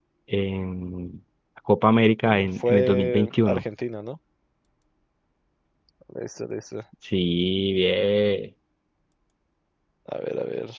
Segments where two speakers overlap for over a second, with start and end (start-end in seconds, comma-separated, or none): 2.2-3.6